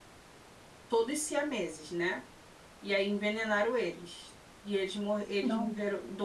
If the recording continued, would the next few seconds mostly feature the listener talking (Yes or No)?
No